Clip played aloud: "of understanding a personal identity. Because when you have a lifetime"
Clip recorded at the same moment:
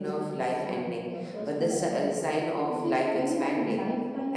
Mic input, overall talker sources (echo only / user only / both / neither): both